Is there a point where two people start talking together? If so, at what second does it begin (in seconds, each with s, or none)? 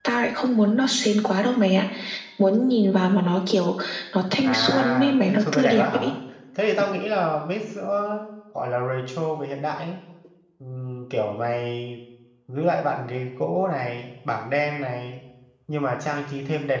4.4 s